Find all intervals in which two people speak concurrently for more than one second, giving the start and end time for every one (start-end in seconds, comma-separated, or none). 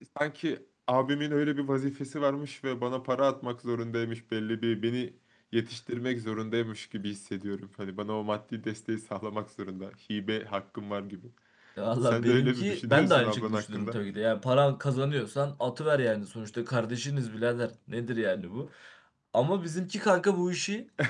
12.0-14.0